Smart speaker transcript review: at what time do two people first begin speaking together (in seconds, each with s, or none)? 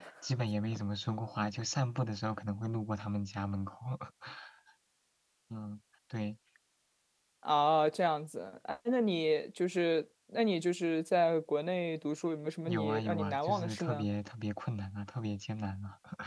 12.7 s